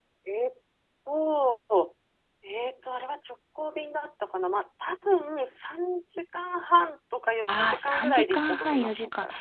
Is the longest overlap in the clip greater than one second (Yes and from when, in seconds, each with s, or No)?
Yes, from 7.5 s